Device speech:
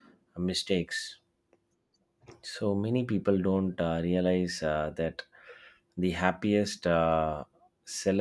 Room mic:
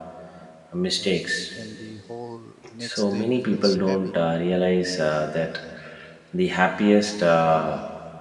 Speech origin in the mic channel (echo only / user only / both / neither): both